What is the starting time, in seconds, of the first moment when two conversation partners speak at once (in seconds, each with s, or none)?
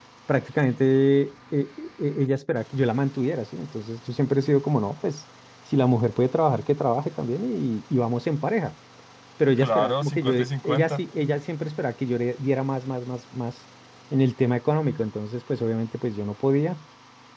9.6 s